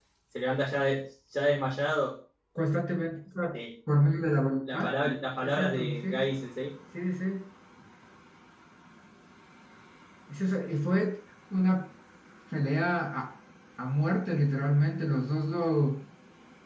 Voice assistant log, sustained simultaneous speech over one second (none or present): present